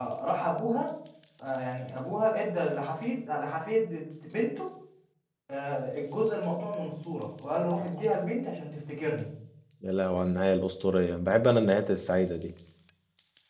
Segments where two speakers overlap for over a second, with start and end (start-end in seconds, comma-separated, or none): none